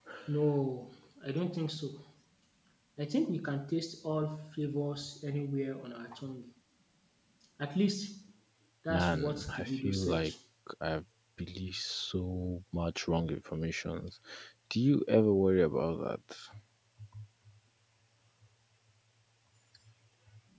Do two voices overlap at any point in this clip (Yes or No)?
Yes